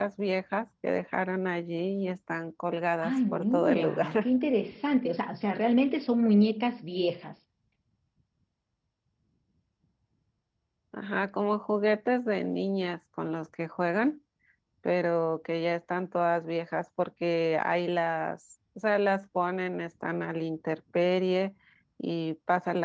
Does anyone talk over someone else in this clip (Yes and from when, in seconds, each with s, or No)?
Yes, from 3.0 s